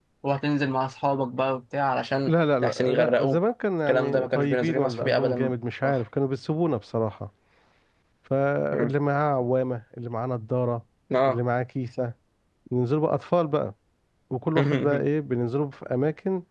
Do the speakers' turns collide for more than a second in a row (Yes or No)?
Yes